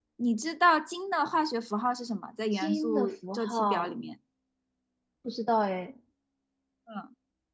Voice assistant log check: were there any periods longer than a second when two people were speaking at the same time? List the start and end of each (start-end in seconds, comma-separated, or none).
2.5-4.0